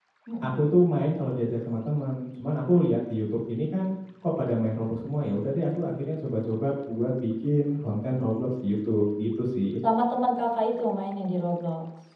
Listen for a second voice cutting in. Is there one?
No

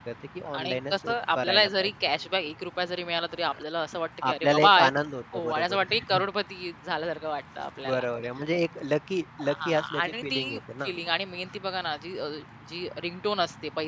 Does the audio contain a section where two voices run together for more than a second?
Yes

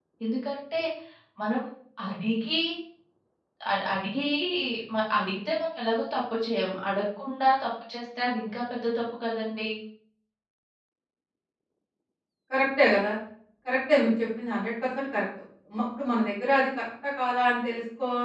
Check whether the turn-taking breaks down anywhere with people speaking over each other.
No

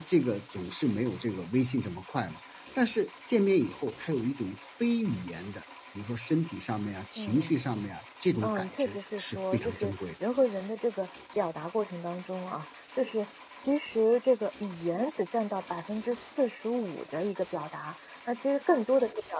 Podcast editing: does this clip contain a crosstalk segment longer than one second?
Yes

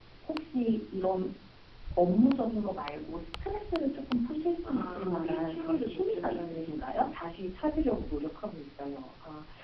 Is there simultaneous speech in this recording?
Yes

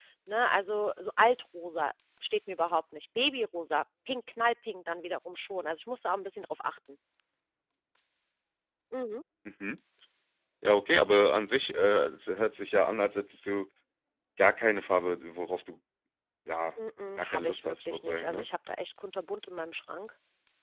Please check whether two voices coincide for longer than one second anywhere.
Yes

